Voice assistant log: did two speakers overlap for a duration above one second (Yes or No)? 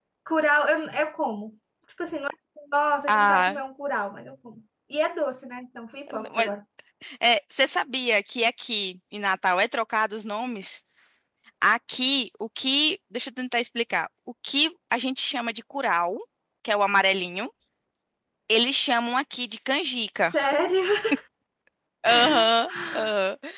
No